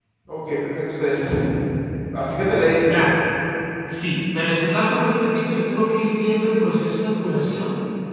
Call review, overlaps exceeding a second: none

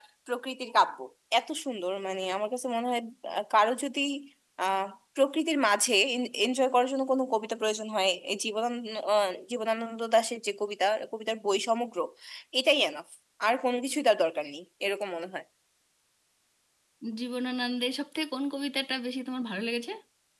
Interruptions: none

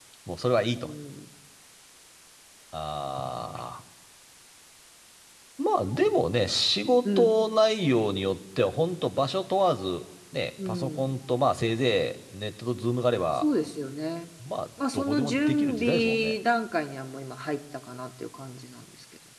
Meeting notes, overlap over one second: present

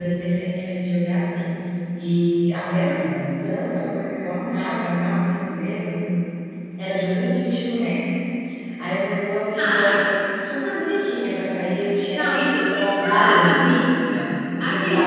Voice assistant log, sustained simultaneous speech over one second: present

